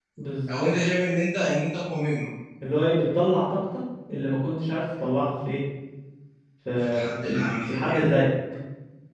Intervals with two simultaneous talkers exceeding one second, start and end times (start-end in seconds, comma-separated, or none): 6.8-8.0